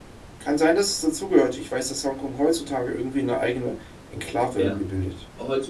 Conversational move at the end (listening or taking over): taking over